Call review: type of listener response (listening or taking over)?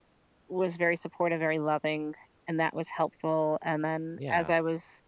listening